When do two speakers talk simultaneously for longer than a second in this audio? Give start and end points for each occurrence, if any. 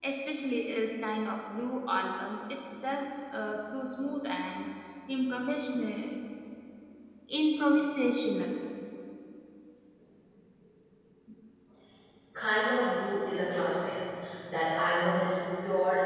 none

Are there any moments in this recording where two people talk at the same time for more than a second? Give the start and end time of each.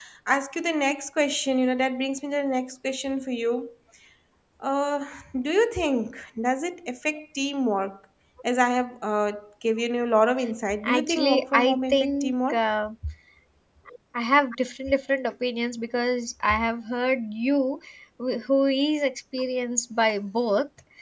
10.8-12.6

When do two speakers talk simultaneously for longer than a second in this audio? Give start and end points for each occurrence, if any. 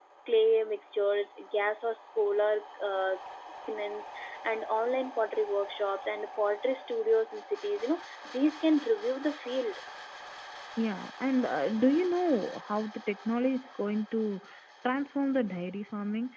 none

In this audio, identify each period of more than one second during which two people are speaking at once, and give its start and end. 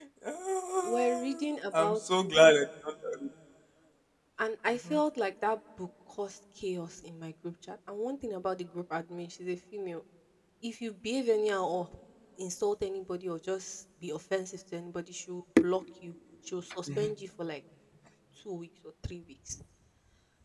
0.8-2.3

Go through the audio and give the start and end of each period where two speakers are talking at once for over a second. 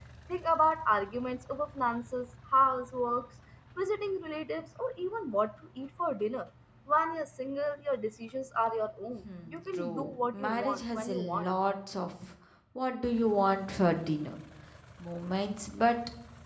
9.5-11.5

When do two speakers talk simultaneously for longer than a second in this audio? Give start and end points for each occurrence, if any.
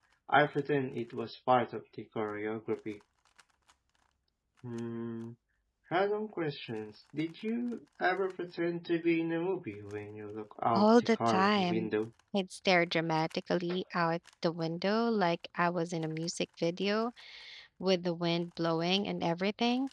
10.7-11.9

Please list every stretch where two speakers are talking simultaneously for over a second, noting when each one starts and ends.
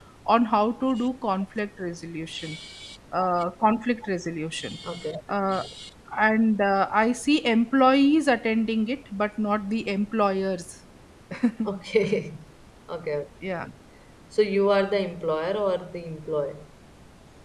none

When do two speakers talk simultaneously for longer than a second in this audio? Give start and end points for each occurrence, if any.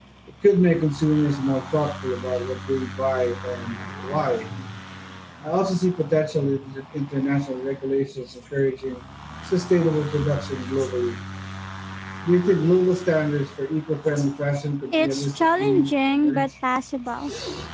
14.9-16.5

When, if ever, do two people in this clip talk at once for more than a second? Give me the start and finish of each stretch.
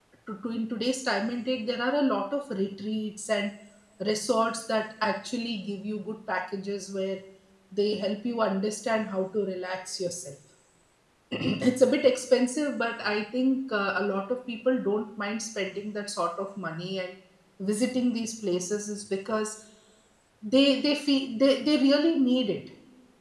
none

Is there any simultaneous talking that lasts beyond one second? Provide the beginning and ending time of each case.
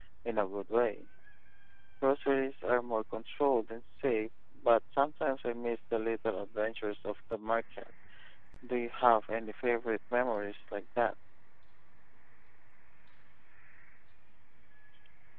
none

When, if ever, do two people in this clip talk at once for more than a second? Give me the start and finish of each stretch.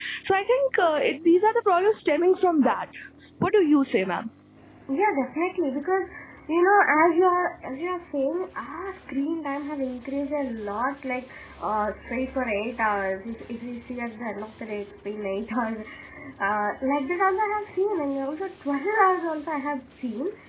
none

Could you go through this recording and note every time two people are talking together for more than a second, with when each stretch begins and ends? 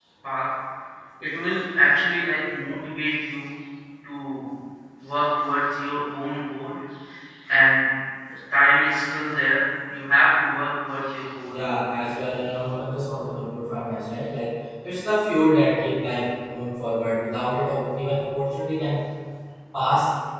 none

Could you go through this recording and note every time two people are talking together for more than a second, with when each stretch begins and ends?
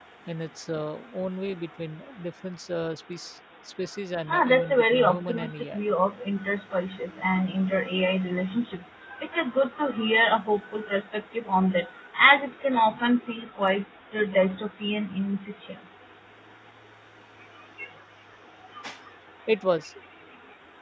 4.3-5.8

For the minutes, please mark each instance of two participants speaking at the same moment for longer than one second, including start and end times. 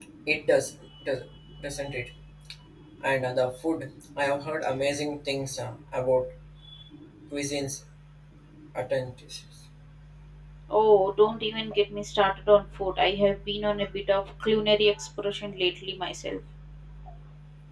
none

